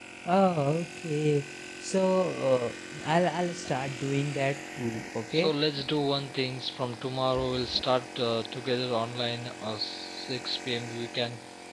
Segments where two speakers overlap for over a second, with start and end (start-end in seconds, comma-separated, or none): none